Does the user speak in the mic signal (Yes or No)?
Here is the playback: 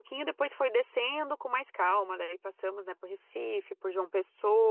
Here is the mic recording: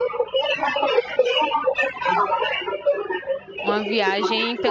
Yes